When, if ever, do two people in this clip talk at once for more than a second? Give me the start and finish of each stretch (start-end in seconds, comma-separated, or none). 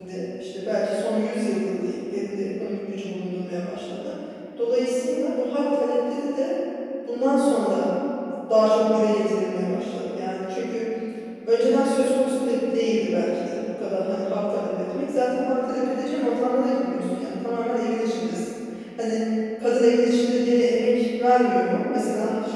none